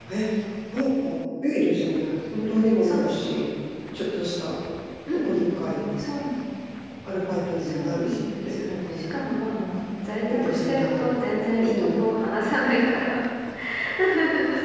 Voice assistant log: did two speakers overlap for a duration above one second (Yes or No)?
Yes